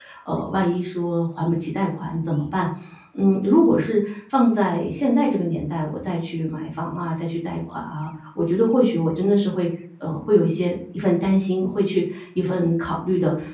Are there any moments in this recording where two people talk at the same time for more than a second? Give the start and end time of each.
none

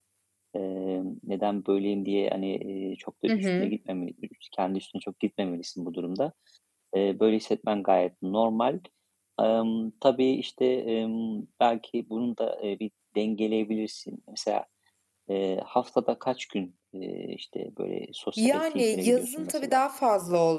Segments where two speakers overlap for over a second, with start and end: 18.4-19.8

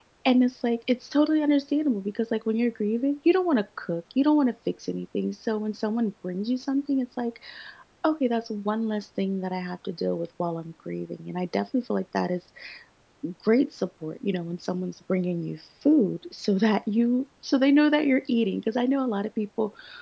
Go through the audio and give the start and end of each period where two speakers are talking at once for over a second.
none

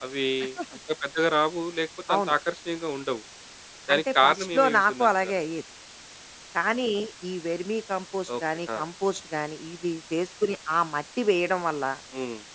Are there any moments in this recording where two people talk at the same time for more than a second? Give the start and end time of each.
3.9-5.4

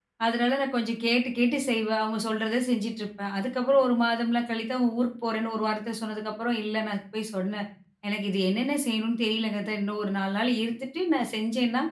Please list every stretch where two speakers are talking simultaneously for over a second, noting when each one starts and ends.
none

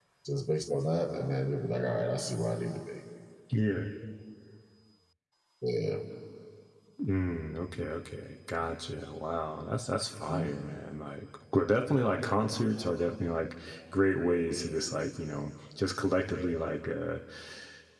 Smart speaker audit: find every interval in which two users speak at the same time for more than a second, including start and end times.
none

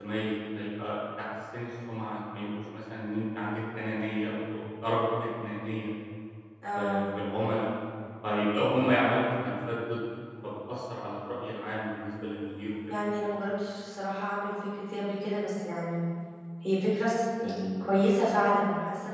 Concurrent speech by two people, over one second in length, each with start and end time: none

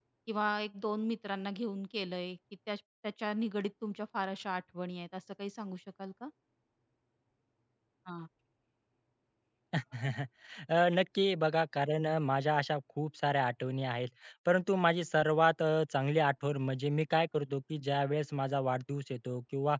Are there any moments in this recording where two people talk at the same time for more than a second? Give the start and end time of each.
none

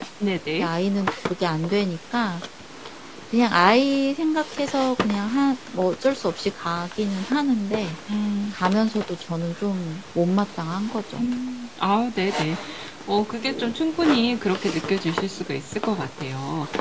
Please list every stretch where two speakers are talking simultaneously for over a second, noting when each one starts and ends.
none

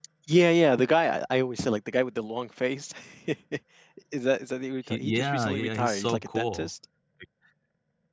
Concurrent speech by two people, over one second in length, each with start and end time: 4.9-6.7

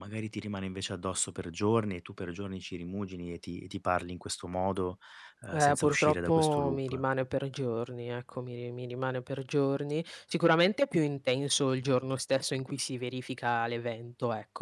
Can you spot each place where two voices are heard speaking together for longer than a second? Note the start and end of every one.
5.5-7.0

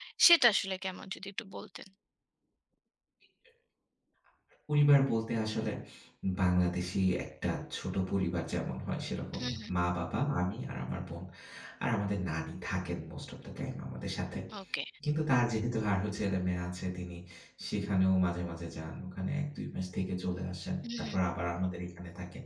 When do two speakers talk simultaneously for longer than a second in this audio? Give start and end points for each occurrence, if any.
none

